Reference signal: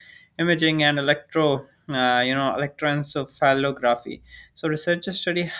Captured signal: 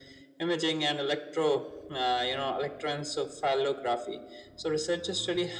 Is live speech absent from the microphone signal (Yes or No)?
Yes